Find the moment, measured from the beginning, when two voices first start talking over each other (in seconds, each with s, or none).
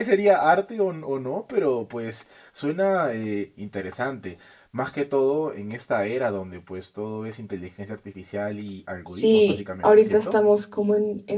9.1 s